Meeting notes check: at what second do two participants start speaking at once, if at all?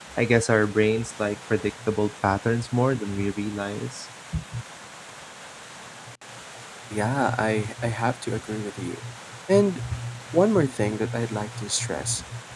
none

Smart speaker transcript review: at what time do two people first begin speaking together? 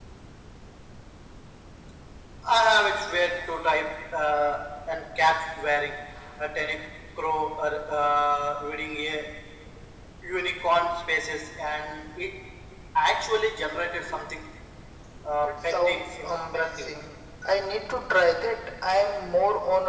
15.4 s

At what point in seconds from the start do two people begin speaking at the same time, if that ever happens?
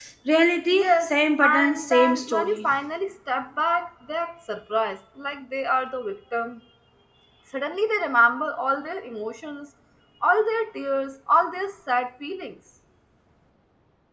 0.7 s

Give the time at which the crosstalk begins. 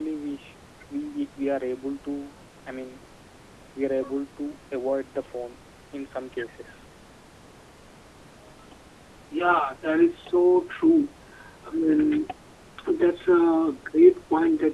none

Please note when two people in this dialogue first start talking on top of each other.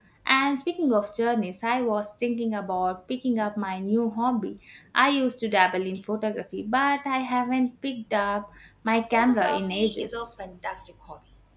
9.1 s

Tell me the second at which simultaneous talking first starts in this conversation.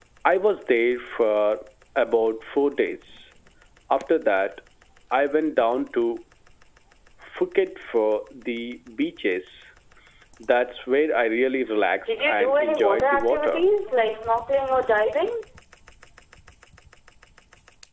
12.1 s

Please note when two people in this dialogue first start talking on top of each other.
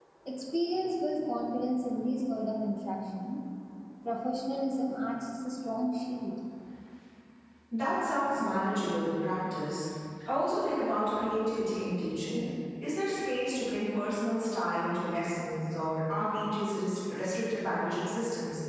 none

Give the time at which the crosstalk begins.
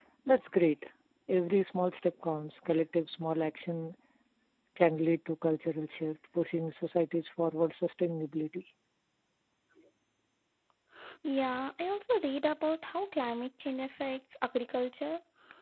none

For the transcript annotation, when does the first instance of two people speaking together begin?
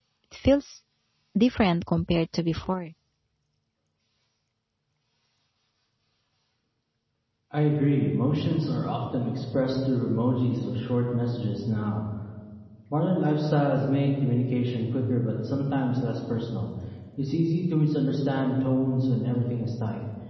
none

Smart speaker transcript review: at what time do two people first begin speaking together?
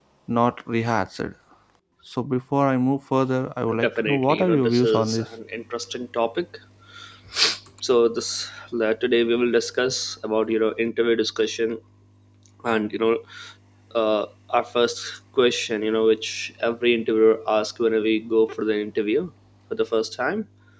3.7 s

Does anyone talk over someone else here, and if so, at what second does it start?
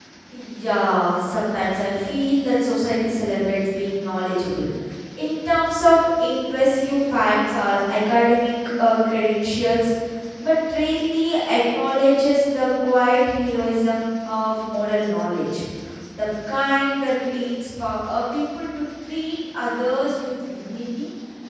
none

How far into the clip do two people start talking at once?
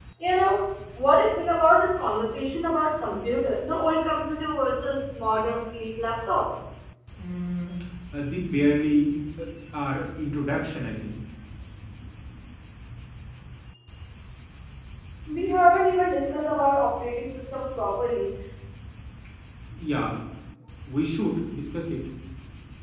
none

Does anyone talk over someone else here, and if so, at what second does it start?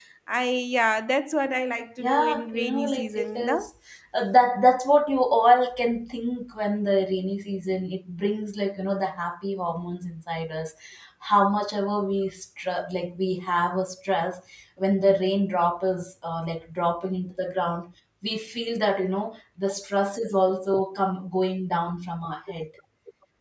2.0 s

